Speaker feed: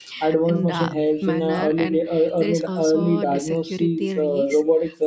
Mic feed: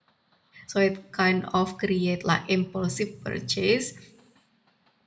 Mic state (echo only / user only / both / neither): user only